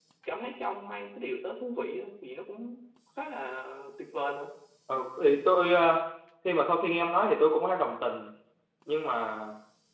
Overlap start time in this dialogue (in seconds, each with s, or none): none